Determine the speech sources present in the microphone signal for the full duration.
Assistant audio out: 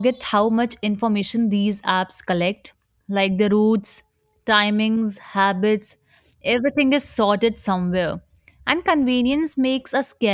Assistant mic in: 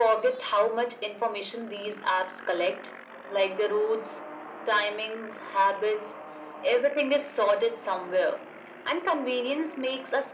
echo only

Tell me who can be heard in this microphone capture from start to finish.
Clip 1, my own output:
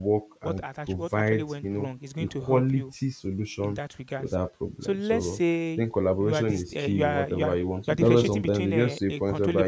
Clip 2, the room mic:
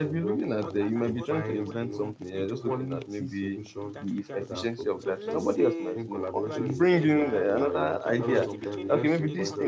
both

